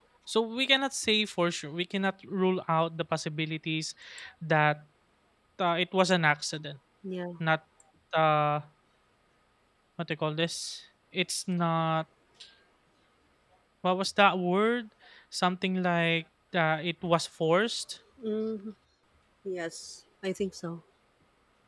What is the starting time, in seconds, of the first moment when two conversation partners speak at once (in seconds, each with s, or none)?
none